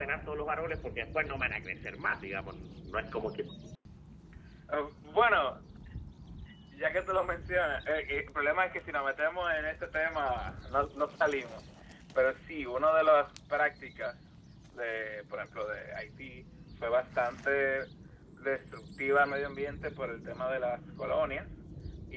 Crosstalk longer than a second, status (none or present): none